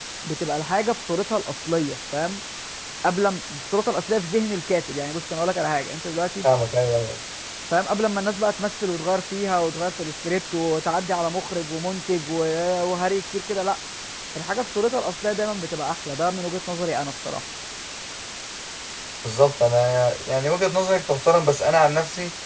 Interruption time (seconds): none

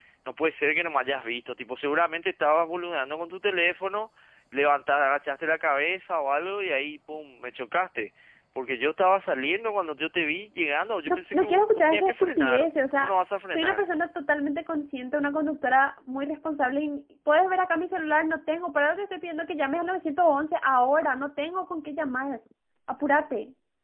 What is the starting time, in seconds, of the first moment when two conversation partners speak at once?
11.1 s

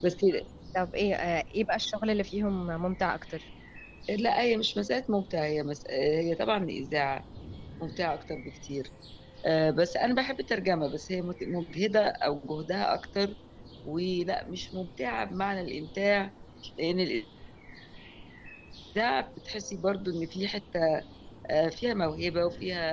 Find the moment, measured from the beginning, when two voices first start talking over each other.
none

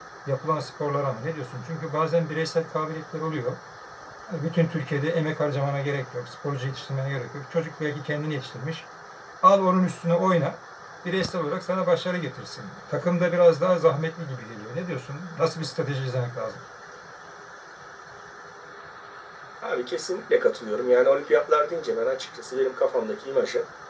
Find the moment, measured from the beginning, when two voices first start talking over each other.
none

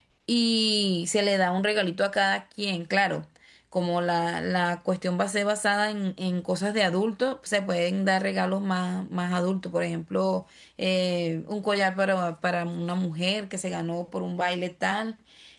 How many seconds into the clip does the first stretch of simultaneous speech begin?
none

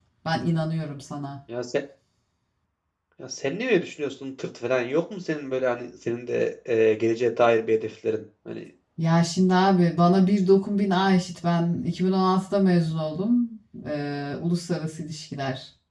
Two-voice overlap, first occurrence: none

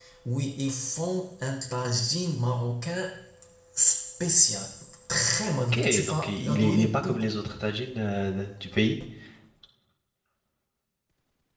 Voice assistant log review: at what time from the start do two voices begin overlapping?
5.6 s

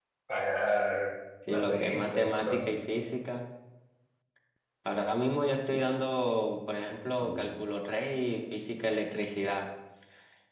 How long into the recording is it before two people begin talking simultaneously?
1.5 s

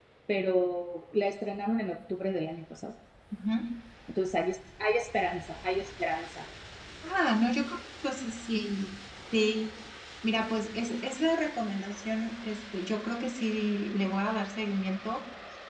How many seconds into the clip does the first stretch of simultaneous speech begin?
none

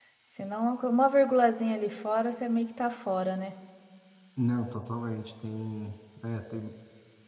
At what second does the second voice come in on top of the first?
none

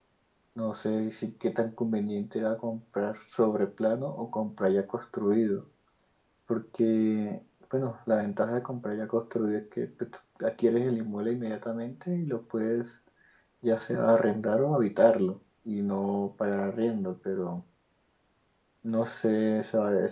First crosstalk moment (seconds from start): none

